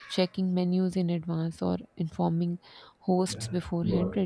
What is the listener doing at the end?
listening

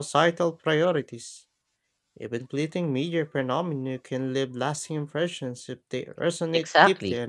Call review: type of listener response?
taking over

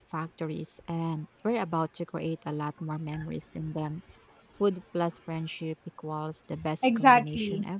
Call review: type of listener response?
taking over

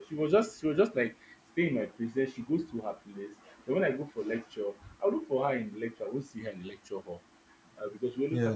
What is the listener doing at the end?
listening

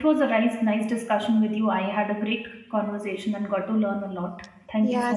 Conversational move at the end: taking over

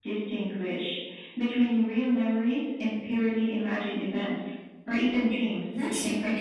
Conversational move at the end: taking over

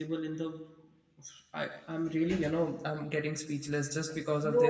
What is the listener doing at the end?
taking over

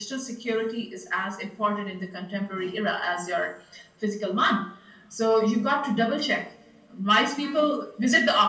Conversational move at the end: listening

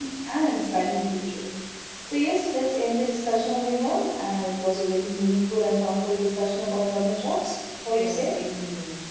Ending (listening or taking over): taking over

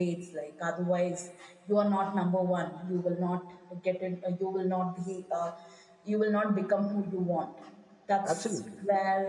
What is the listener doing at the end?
listening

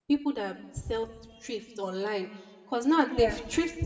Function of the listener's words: listening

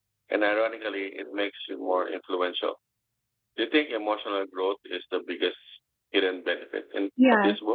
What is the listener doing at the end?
taking over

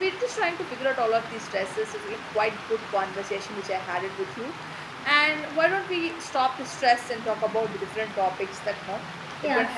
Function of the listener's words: taking over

